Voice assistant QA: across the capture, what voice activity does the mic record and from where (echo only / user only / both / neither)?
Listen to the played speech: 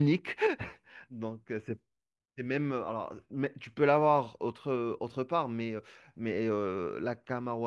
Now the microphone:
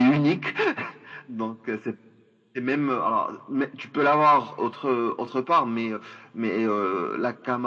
echo only